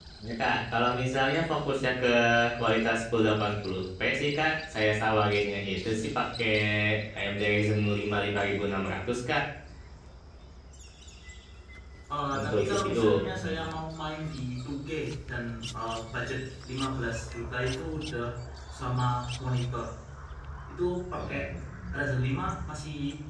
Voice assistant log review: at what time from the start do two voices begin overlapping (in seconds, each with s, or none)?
12.3 s